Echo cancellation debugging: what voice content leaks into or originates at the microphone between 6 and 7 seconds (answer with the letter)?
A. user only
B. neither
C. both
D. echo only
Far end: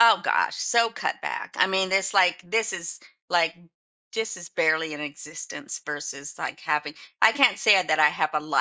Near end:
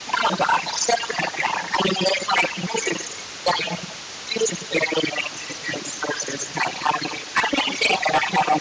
D